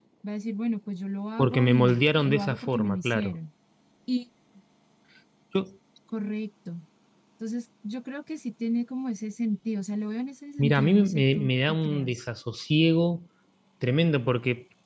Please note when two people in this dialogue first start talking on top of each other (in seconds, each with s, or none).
1.4 s